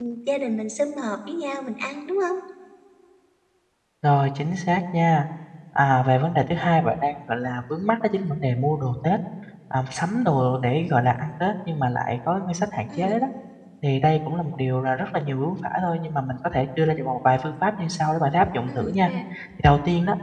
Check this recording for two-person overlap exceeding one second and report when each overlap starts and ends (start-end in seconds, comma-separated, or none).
none